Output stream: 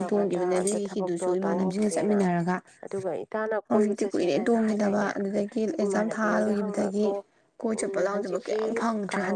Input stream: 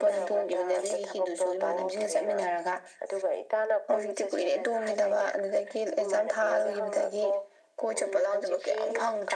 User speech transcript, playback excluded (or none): none